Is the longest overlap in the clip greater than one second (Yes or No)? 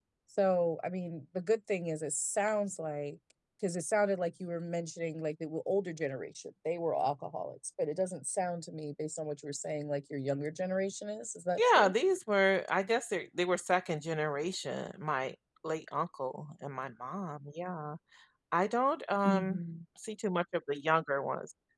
No